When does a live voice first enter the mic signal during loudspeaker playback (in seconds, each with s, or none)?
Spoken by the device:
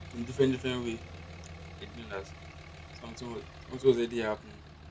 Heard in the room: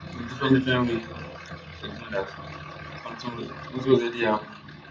none